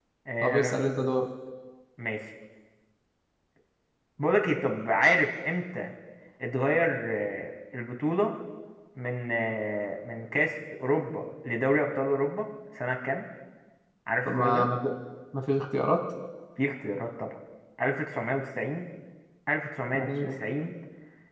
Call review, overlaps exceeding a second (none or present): none